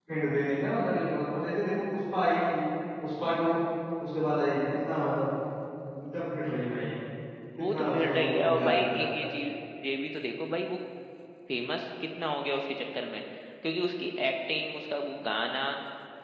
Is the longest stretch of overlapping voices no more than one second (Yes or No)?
No